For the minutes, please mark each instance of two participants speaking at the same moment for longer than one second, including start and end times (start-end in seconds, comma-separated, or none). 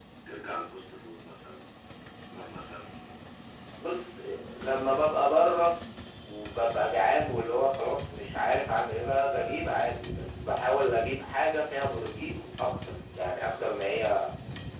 none